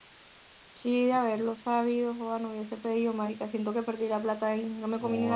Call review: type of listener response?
taking over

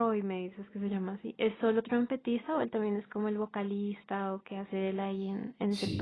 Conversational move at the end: taking over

